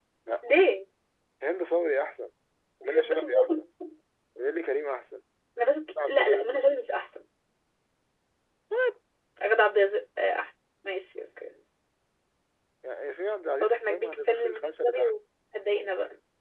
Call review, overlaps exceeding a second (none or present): present